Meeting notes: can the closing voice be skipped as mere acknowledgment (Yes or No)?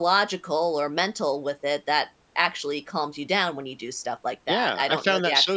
No